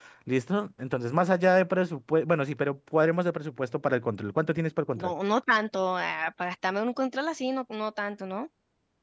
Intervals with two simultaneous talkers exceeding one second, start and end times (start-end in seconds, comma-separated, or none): none